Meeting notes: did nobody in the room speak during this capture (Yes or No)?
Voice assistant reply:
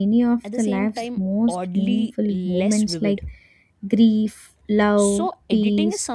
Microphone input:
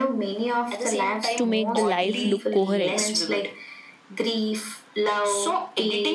No